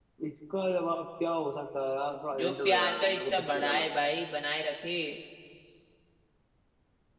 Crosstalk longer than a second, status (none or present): present